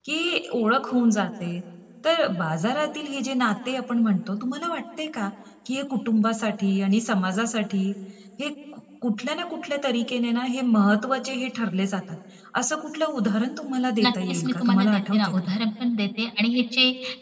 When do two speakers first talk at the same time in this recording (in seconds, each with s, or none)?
14.0 s